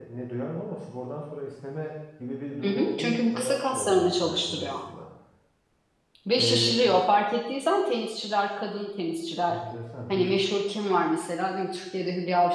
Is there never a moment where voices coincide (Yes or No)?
No